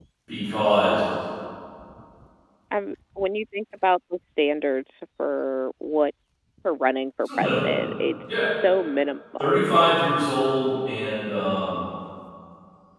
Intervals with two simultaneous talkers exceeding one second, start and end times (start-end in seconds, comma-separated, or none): none